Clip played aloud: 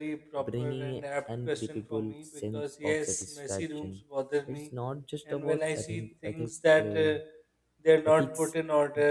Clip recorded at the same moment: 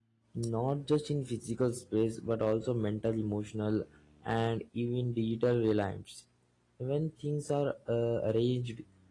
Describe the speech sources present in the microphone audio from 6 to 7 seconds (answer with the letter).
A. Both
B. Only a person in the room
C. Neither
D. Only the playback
B